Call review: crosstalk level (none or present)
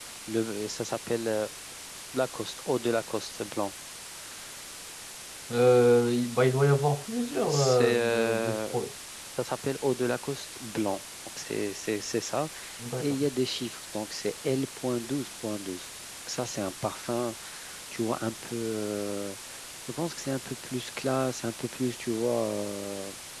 present